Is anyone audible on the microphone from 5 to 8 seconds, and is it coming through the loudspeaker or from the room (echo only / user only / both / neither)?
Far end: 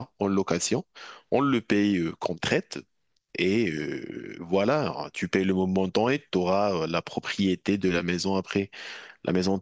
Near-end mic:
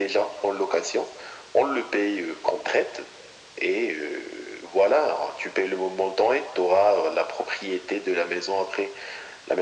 echo only